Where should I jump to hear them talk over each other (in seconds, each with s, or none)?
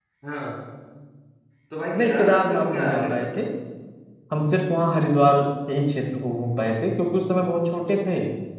2.0 s